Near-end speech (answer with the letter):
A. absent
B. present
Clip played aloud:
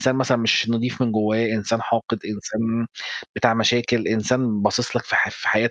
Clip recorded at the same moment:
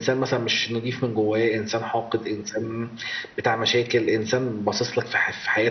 A